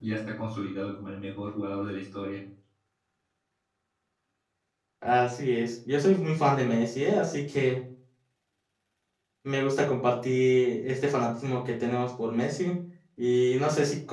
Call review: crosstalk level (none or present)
none